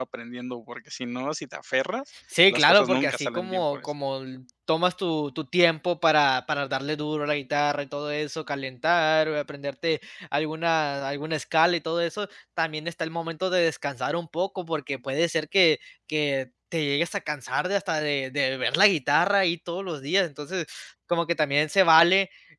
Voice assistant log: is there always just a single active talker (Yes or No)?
No